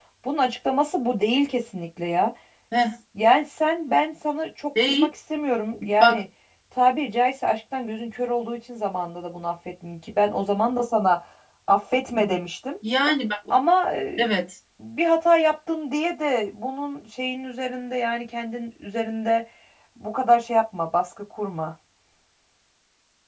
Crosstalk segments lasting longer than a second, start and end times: none

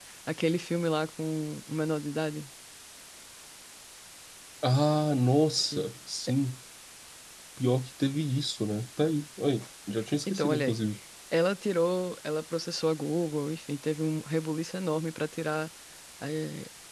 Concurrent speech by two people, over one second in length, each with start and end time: none

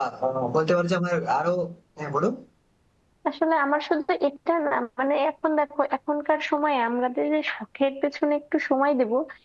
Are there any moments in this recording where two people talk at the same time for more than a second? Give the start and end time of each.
none

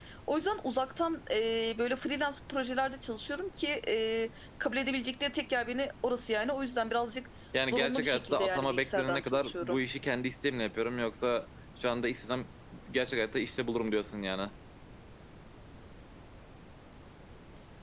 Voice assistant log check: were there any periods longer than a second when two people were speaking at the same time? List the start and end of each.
7.6-9.8

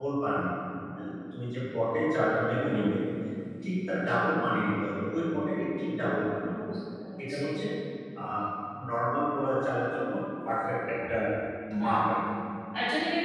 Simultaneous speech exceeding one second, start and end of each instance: none

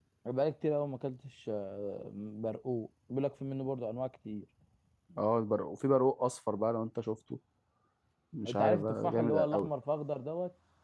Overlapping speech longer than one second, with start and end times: 8.5-9.7

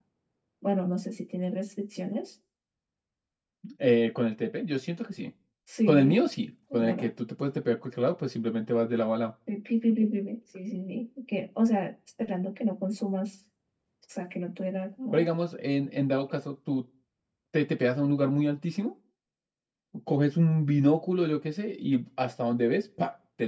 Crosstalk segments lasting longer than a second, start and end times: none

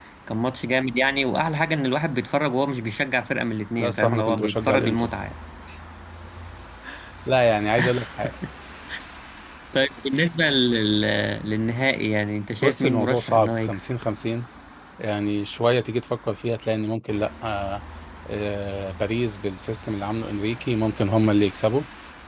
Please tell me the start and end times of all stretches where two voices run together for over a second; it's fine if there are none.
3.8-5.1, 12.6-13.8

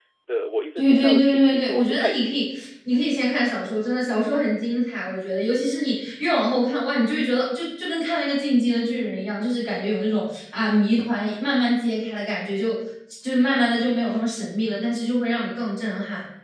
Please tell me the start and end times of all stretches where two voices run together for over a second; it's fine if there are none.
0.8-2.4

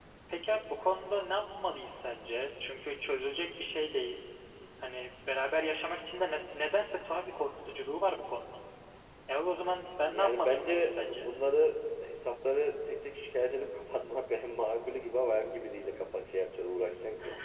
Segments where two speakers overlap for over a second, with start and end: 10.1-11.3

